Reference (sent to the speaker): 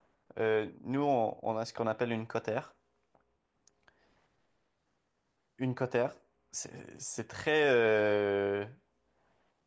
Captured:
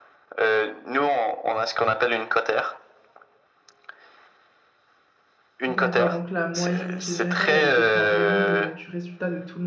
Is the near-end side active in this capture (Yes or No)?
Yes